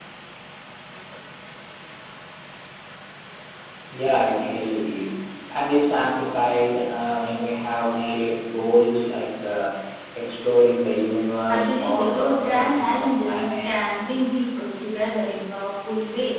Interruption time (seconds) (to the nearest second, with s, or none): 11 s